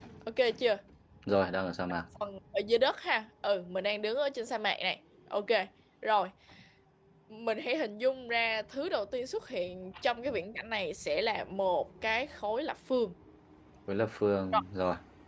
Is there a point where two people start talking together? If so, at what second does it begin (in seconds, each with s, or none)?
none